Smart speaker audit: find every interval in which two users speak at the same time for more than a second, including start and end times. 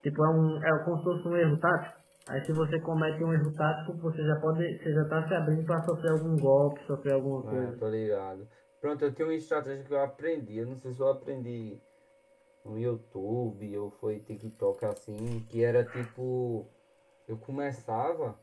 none

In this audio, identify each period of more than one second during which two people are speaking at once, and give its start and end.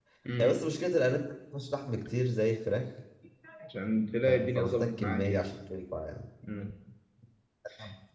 4.3-5.5

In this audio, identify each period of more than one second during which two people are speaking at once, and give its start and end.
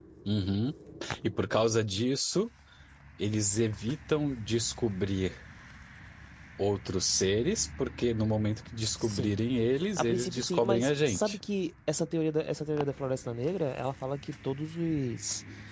10.0-11.4

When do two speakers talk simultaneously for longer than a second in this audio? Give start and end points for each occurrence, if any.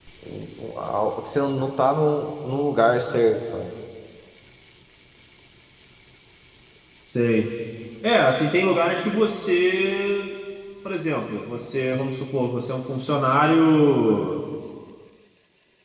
none

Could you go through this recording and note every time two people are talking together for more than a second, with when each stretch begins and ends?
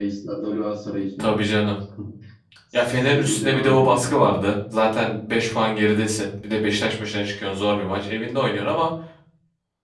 2.7-4.3

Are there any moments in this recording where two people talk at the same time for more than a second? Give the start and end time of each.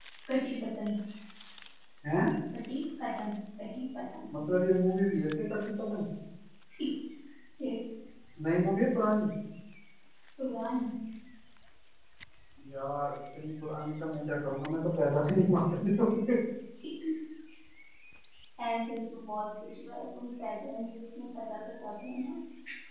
none

